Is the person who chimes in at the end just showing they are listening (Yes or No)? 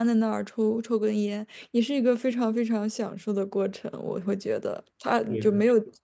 Yes